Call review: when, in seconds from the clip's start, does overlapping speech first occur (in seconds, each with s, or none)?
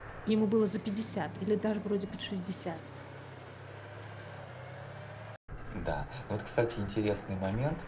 none